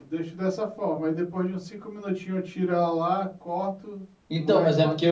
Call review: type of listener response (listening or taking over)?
taking over